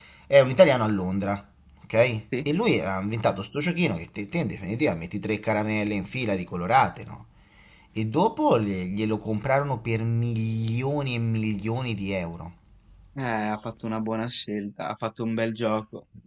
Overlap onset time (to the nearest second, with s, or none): none